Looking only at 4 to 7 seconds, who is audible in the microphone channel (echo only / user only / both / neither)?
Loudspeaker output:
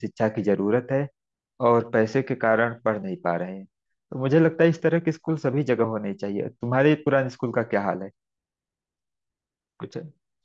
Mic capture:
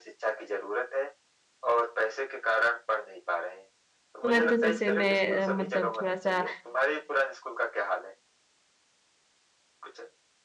both